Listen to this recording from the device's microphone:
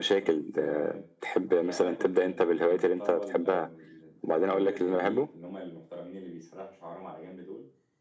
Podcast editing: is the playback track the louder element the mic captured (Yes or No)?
Yes